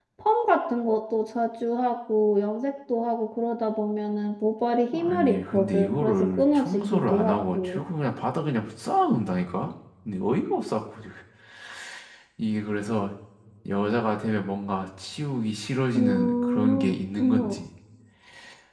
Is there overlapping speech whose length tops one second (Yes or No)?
Yes